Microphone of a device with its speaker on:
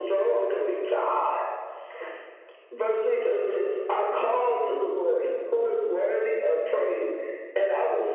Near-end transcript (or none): none